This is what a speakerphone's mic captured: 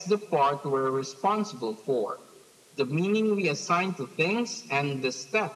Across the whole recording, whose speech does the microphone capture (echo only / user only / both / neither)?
echo only